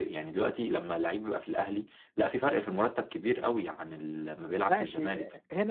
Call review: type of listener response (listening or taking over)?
taking over